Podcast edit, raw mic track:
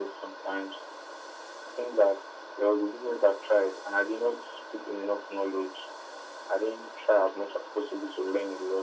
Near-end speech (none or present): none